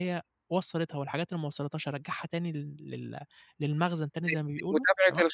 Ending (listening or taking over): taking over